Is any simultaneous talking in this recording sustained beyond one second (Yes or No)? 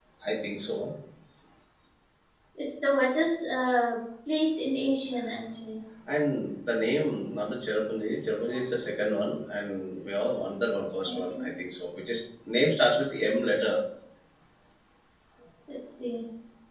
No